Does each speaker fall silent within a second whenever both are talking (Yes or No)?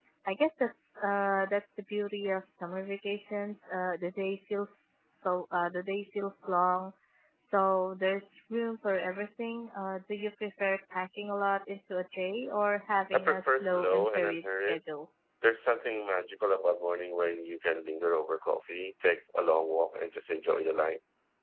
No